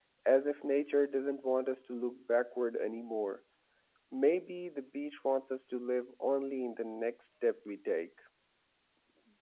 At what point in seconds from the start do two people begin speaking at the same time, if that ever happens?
none

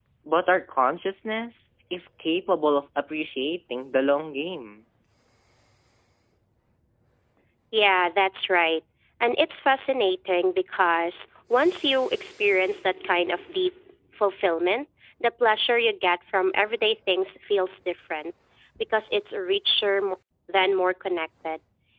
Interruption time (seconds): none

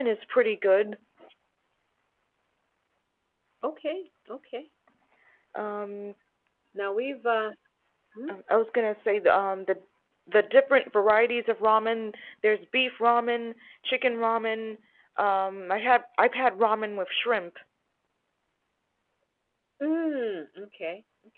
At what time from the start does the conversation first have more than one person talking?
none

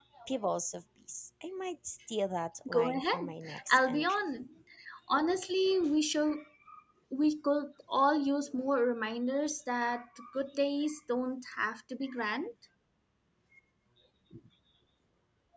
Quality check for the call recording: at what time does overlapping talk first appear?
2.6 s

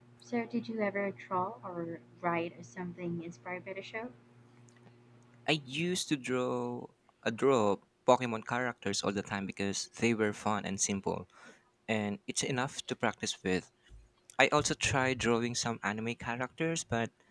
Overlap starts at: none

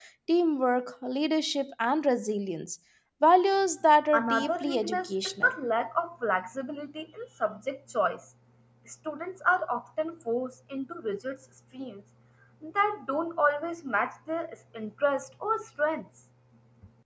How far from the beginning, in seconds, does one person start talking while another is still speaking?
4.1 s

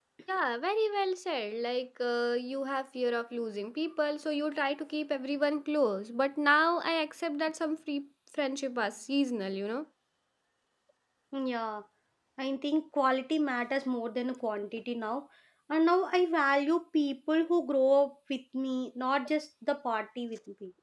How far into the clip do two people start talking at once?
none

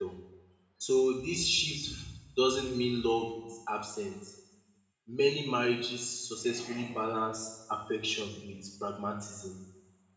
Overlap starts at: none

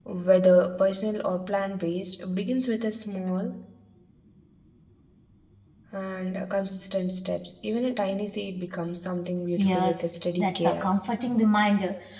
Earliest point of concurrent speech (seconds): 9.6 s

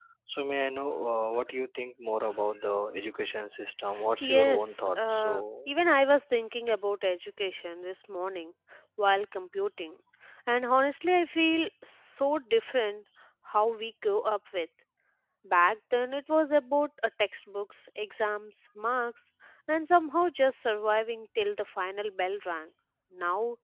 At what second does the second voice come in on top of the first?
4.2 s

